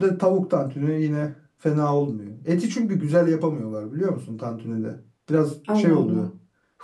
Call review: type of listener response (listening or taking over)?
listening